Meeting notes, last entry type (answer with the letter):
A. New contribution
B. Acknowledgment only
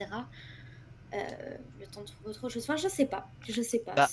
A